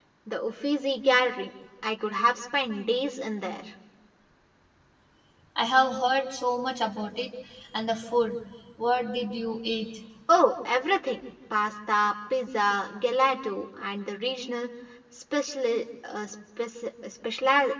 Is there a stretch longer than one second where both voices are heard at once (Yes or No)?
No